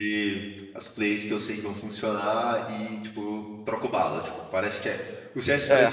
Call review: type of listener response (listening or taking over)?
listening